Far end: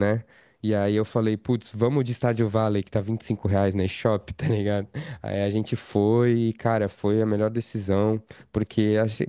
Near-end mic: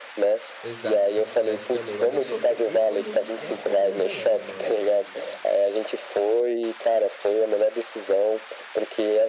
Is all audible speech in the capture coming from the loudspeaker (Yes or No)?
No